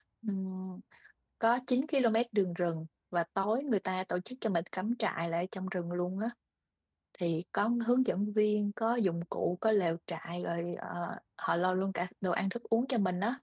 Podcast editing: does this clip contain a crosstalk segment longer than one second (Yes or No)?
No